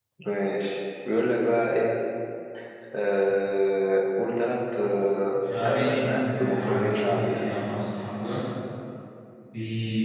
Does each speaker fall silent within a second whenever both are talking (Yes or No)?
No